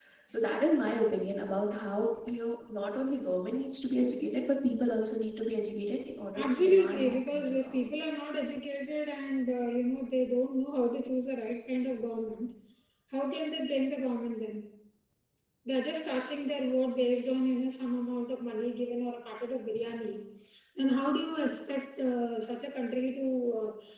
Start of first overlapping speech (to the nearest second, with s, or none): 6 s